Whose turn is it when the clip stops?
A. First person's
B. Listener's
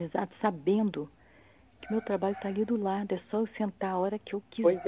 B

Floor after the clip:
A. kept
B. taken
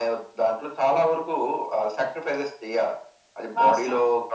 A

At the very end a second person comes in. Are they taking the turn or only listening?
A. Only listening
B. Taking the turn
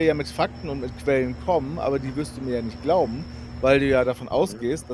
A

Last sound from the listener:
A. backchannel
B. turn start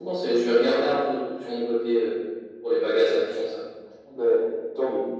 B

